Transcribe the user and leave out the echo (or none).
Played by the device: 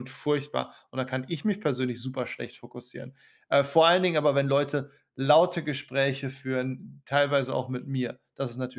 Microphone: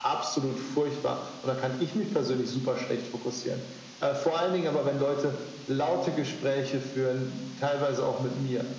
none